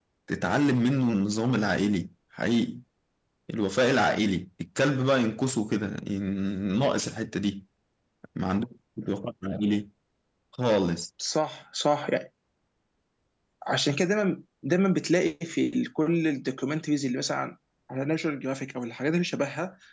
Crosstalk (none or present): none